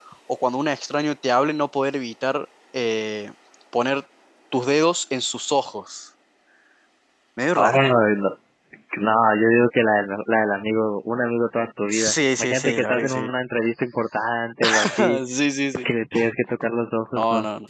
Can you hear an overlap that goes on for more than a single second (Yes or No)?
Yes